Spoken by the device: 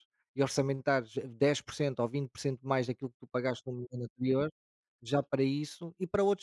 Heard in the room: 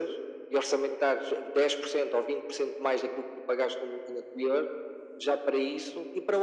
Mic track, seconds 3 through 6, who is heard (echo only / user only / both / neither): echo only